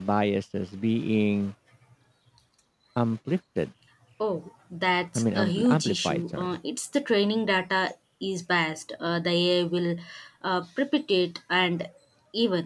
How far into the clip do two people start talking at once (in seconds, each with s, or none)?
5.2 s